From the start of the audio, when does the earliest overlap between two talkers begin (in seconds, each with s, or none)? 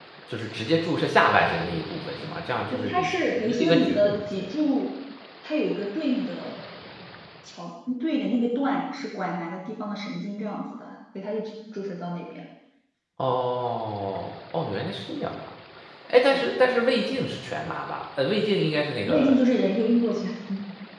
2.7 s